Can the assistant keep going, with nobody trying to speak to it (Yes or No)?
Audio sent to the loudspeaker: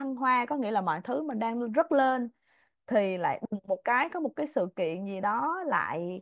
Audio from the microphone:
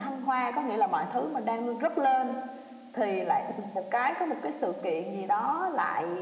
Yes